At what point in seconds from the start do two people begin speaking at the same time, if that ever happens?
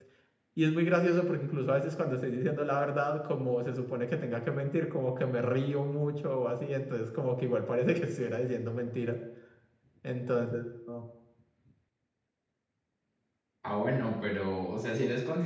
none

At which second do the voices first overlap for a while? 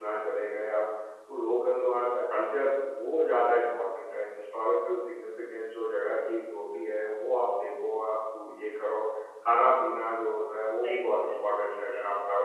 10.8 s

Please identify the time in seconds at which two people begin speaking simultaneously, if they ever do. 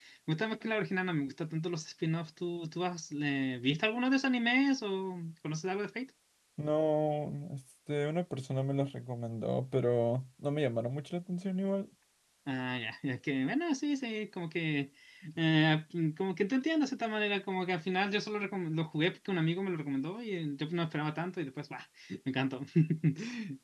none

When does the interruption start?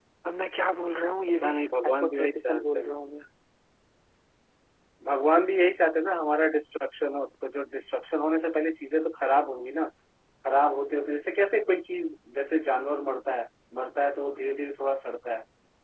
1.3 s

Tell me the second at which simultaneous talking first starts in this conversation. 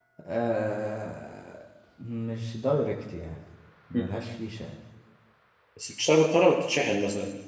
none

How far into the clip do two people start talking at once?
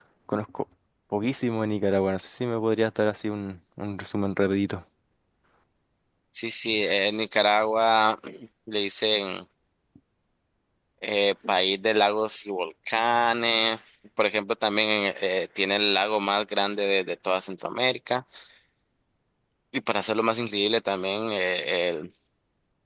none

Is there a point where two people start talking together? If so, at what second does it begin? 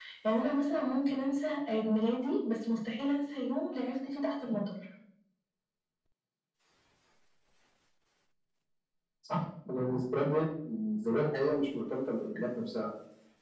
none

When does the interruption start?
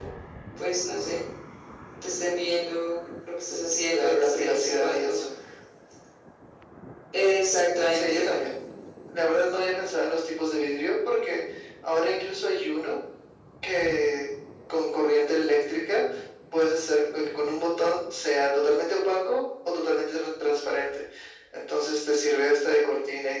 3.9 s

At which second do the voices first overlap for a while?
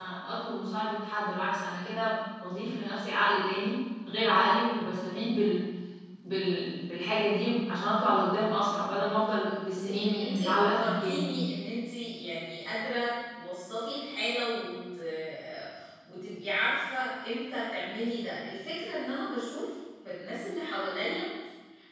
9.4 s

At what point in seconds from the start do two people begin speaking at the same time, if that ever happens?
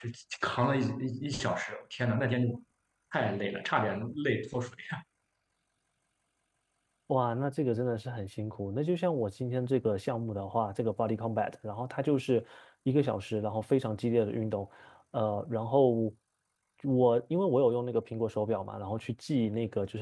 none

